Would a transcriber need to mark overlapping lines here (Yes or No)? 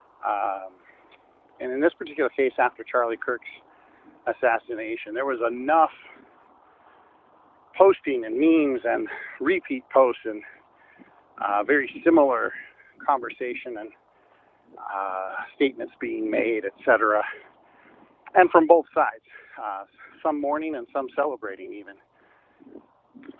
No